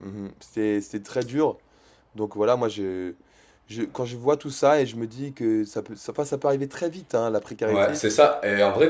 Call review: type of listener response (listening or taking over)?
taking over